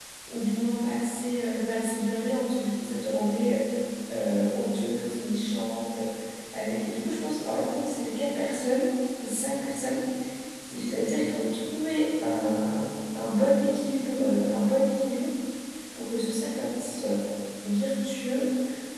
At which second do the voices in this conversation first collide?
none

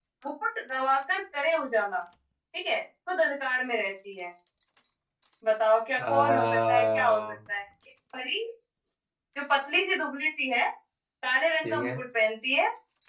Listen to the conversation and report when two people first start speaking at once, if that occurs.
6.0 s

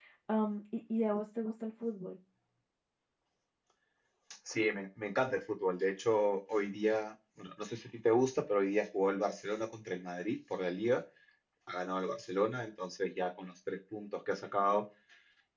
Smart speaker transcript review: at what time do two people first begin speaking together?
none

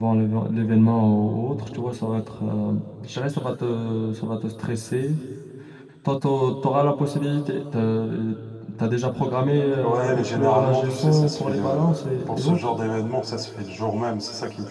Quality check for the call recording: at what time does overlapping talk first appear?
9.7 s

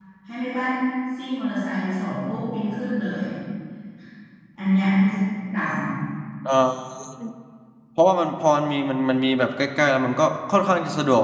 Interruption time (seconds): none

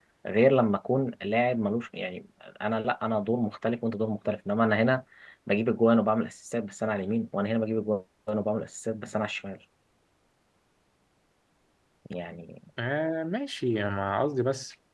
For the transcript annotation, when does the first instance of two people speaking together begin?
none

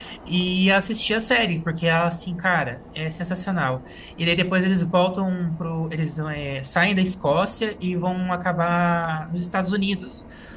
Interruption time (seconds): none

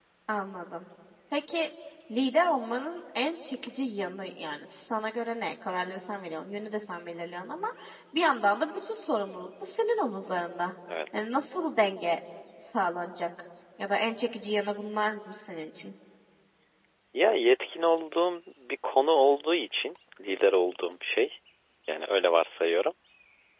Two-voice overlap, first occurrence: none

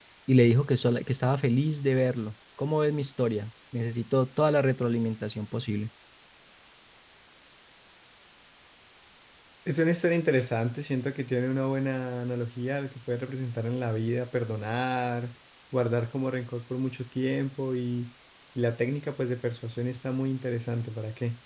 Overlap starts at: none

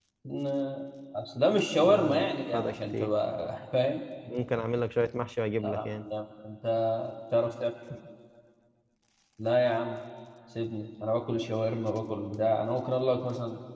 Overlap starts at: 1.8 s

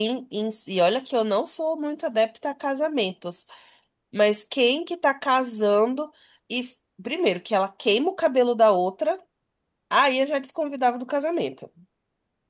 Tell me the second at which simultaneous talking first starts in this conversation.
none

